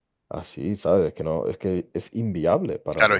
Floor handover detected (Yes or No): Yes